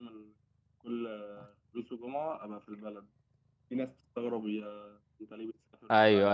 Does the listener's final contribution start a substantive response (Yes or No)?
Yes